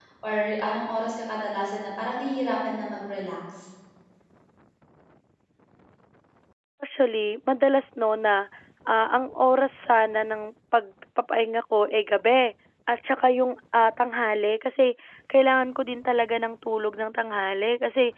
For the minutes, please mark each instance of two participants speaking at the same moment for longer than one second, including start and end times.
none

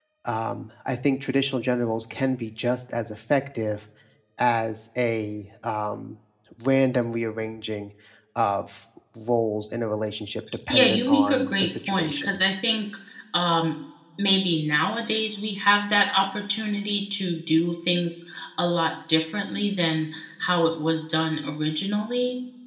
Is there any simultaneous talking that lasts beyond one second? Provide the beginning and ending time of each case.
10.7-12.4

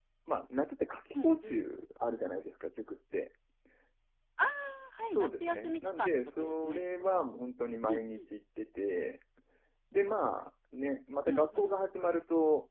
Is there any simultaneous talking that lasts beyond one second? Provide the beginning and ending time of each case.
5.0-6.9

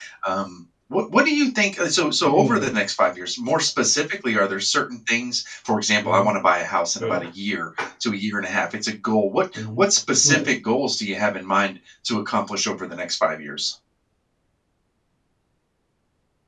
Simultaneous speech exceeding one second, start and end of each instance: none

